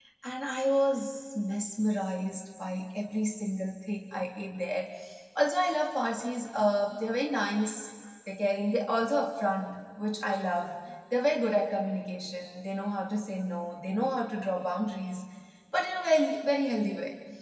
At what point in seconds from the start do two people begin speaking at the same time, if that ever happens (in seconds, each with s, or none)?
none